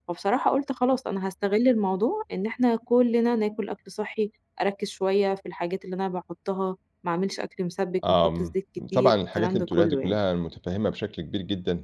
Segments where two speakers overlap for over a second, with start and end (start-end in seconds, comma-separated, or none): 8.9-10.2